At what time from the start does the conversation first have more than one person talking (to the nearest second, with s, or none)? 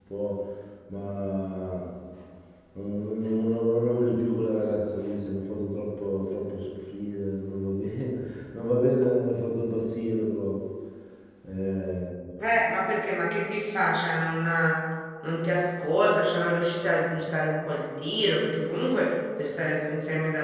none